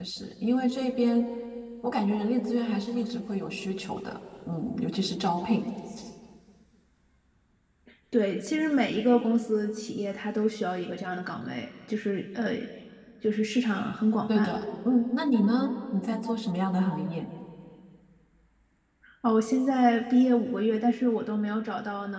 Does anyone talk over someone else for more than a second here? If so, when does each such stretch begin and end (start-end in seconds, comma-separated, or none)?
none